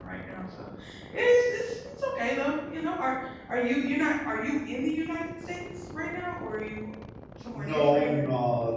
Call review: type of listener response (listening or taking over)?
taking over